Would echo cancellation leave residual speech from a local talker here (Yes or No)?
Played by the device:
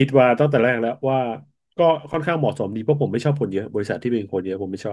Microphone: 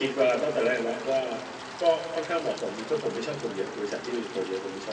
No